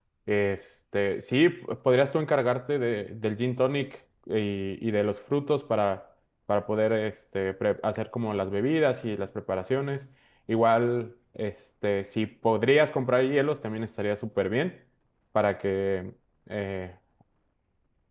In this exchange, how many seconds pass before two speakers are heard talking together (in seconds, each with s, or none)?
none